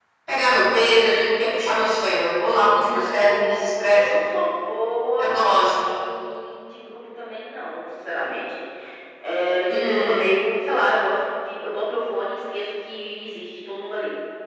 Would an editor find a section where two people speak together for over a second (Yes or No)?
Yes